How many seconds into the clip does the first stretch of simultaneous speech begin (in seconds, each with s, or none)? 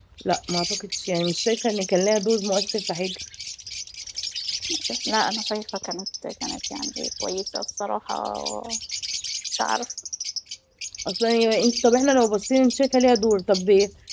none